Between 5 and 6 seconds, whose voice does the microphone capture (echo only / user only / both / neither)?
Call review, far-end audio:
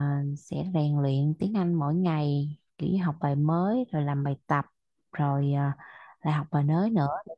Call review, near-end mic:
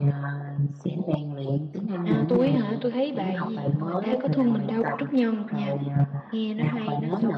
both